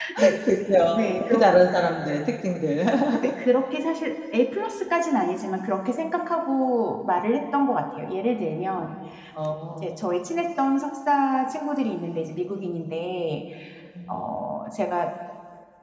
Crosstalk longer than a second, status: none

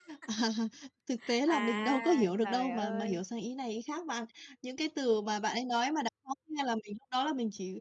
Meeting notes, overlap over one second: present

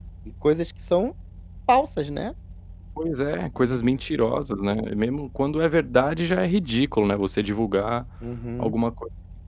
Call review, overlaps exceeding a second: none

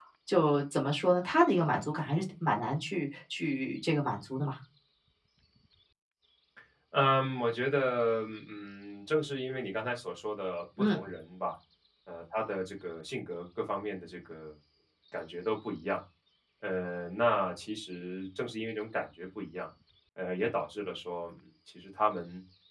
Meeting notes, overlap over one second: none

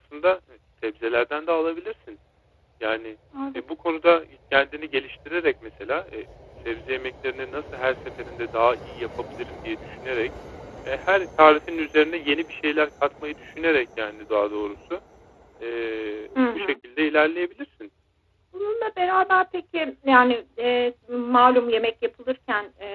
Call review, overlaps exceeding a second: none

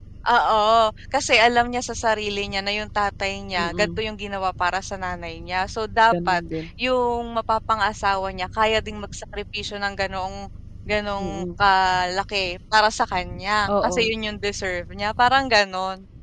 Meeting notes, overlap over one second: none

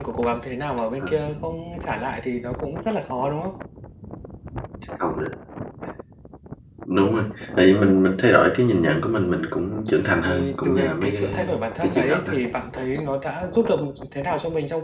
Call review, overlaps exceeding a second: present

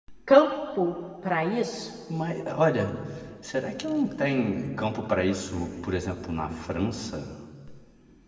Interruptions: none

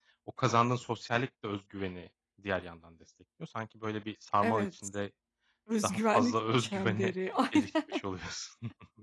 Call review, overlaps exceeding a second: present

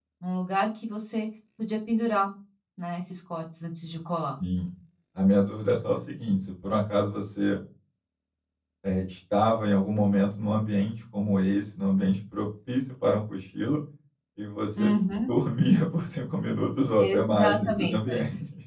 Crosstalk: present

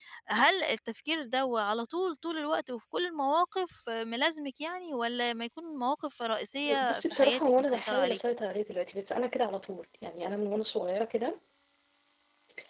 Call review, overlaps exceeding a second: present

